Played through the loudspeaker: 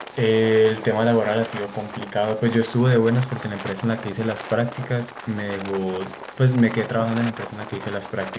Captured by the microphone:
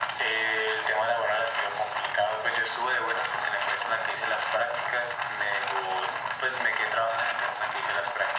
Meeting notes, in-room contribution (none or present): none